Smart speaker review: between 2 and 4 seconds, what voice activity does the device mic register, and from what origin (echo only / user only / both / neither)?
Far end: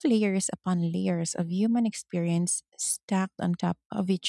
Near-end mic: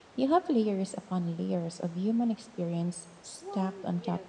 both